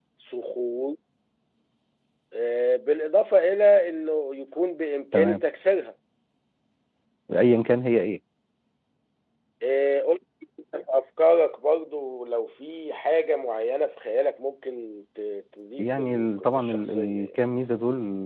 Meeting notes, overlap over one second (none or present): present